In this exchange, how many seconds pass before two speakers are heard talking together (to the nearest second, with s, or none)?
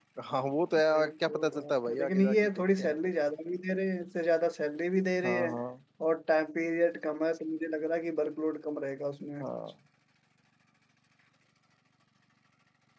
1 s